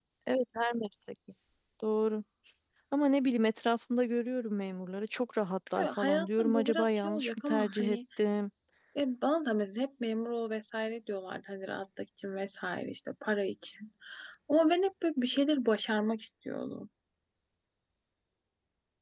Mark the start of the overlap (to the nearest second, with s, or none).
6 s